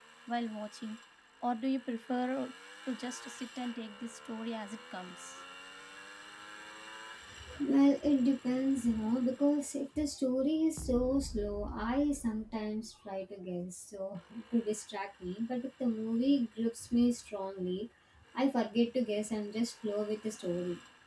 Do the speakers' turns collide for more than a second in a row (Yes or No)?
No